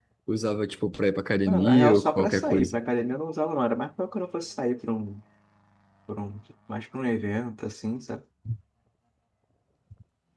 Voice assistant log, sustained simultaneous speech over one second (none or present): present